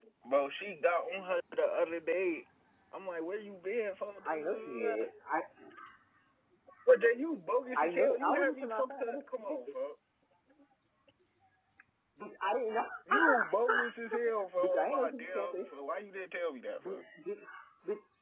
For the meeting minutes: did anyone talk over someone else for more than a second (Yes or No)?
Yes